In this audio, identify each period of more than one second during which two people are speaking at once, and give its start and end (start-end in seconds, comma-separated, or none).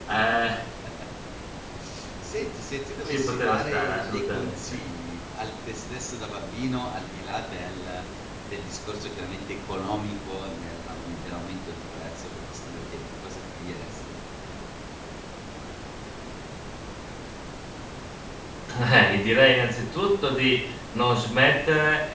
3.0-4.8